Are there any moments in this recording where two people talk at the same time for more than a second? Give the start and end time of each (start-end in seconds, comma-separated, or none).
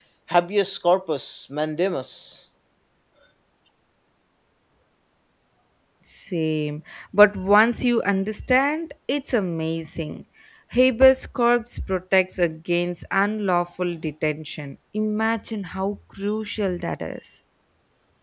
none